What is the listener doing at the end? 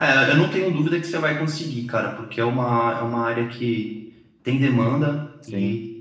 listening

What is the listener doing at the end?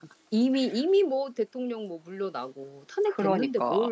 taking over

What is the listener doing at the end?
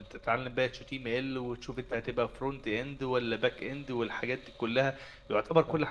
listening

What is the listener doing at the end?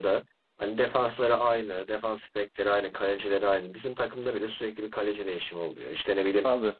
listening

